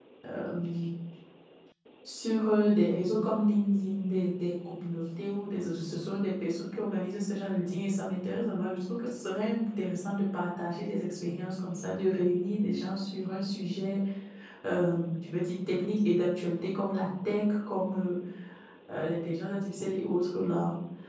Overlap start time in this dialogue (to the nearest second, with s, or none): none